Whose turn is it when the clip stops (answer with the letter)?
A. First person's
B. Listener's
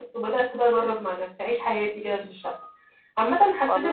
A